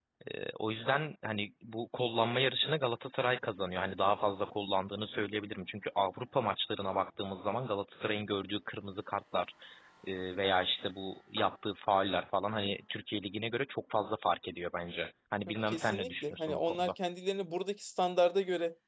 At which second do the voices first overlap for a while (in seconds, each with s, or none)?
15.5 s